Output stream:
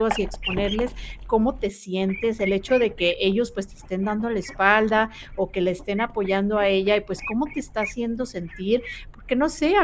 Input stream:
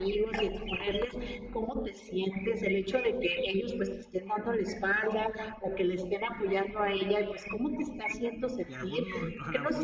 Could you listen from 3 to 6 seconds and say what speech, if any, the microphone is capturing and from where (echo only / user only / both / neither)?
echo only